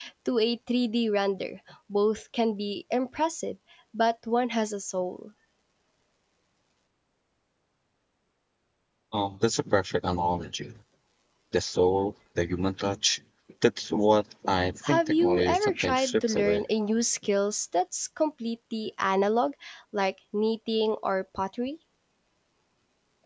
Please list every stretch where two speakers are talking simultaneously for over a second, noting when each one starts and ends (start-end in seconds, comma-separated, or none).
14.9-16.6